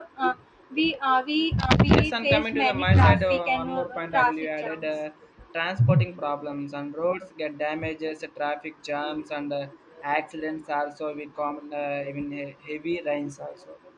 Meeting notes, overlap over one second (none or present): present